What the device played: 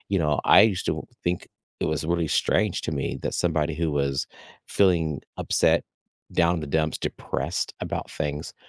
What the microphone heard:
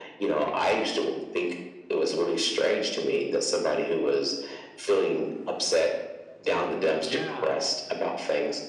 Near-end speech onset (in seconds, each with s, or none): 7.0 s